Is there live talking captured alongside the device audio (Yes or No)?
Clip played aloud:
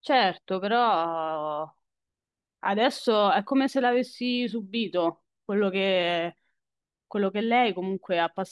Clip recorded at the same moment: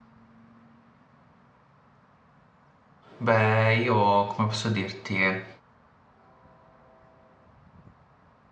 Yes